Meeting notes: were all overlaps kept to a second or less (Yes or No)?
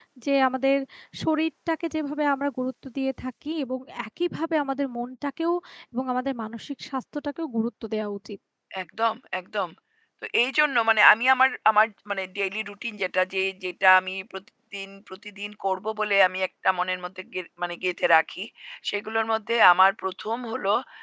Yes